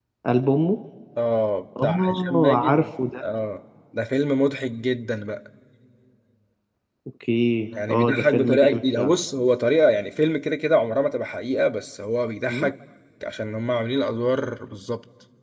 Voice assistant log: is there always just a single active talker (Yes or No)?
No